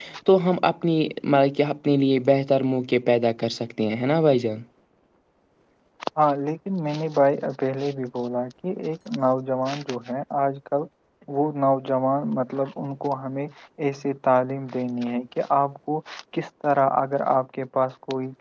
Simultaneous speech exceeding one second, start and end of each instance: none

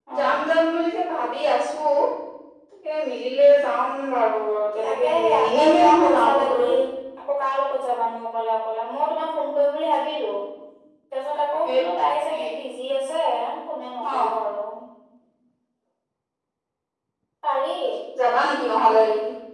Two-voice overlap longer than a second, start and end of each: 4.8-6.7

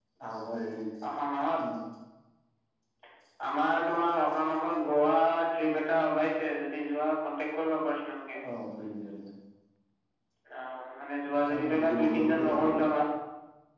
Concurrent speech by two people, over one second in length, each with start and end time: 11.5-12.8

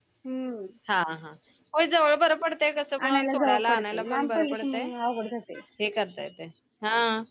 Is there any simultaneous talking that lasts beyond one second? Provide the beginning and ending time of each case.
3.1-4.7

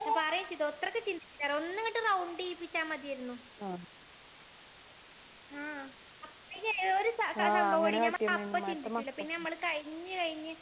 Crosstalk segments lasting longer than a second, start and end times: 7.5-9.0

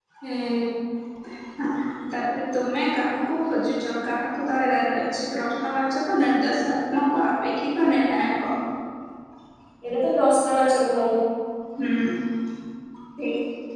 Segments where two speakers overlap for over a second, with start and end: none

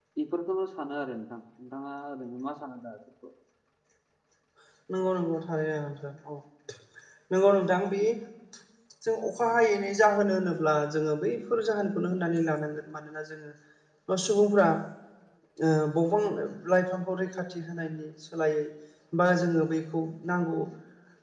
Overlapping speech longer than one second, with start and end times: none

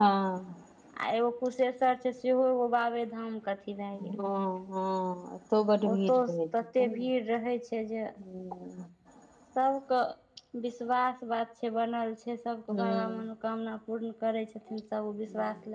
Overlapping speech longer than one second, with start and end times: none

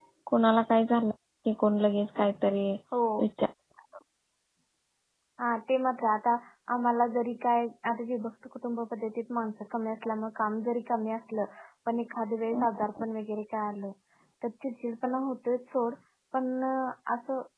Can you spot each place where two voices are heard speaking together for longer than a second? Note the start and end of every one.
none

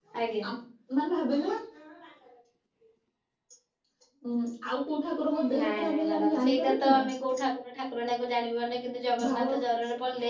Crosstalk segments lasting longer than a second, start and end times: 5.6-7.0

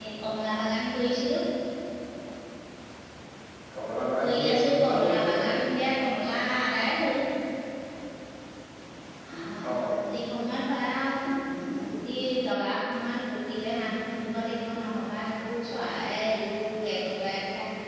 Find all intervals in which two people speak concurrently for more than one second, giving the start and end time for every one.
4.2-5.5

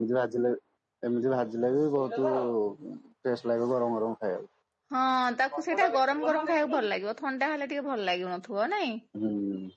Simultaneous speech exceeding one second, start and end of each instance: 5.6-6.9

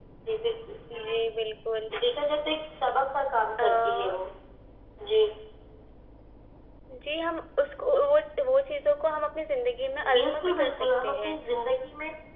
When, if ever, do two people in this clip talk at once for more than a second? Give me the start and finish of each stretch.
10.1-11.3

